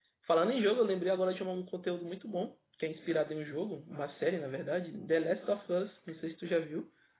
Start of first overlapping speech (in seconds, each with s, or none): none